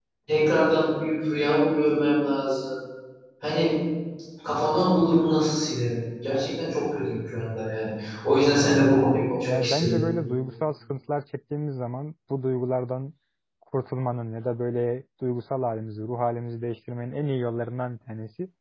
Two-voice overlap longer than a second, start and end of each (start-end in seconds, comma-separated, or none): 8.4-10.0